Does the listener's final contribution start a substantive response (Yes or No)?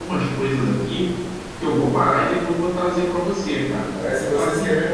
Yes